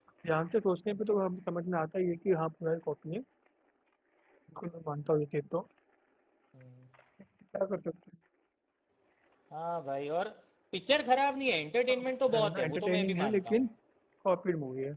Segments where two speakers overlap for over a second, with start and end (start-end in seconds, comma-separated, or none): 11.9-13.6